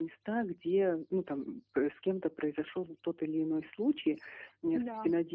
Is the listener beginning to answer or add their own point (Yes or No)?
No